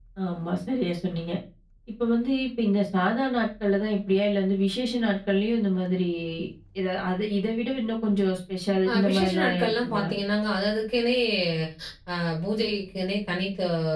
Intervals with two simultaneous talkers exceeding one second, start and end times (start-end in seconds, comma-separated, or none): 8.9-10.1